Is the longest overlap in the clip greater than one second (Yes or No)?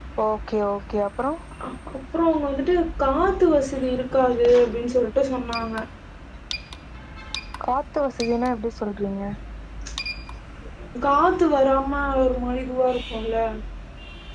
No